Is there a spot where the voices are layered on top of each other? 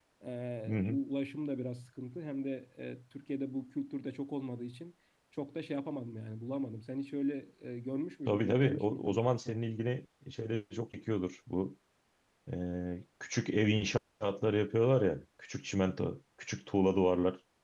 Yes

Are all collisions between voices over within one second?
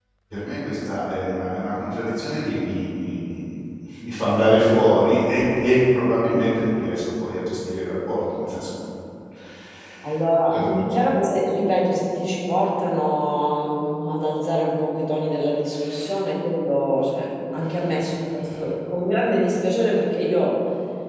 Yes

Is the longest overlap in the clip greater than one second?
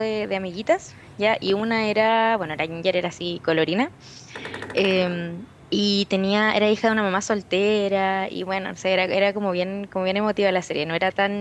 No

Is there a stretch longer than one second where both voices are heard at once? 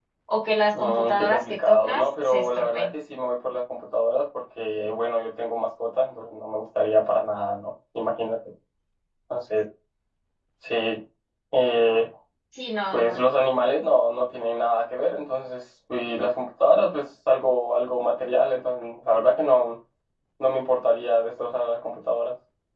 Yes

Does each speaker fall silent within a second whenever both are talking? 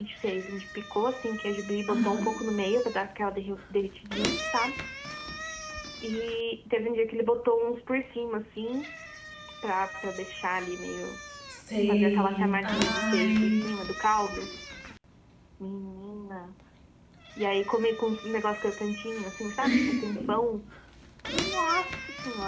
No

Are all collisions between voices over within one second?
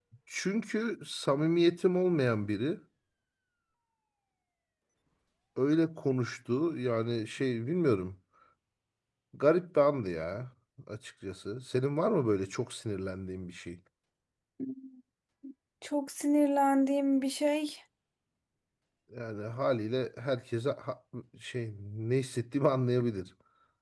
Yes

